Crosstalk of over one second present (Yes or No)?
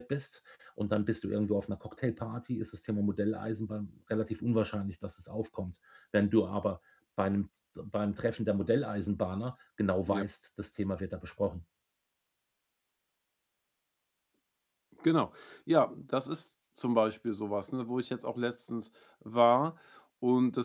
No